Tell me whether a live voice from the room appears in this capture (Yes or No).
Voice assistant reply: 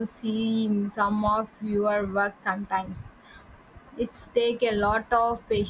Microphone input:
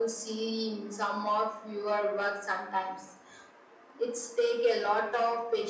No